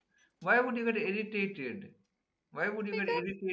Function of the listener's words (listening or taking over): listening